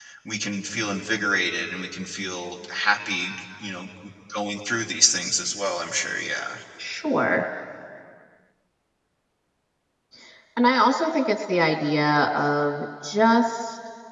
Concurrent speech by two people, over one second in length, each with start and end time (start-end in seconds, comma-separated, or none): none